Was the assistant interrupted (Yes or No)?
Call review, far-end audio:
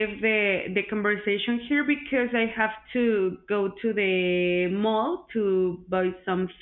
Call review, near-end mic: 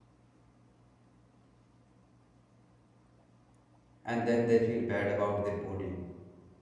Yes